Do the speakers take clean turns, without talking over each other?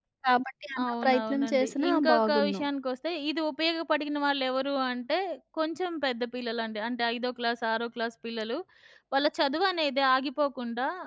No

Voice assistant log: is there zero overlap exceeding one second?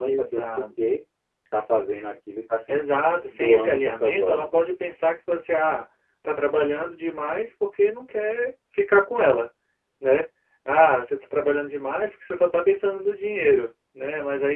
No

